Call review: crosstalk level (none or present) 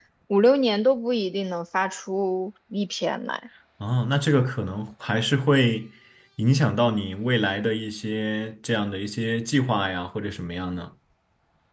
none